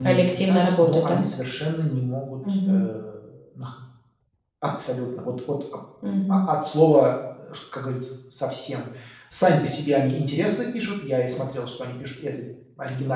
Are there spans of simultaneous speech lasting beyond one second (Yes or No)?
Yes